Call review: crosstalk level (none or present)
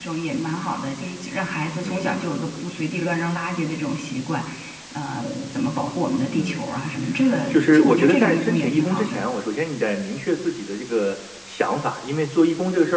present